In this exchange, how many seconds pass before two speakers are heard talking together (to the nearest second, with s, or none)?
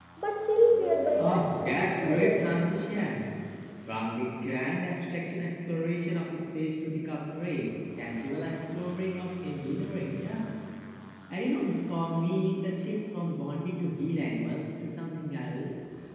1 s